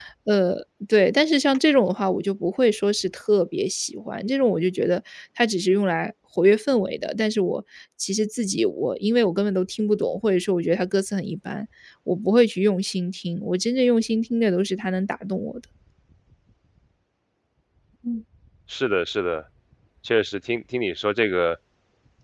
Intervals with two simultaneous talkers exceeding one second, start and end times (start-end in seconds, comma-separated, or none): none